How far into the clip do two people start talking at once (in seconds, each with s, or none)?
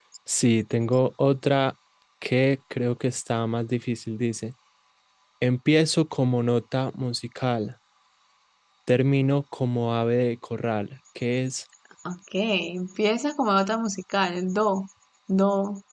none